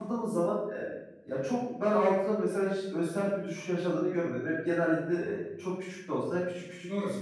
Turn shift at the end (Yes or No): Yes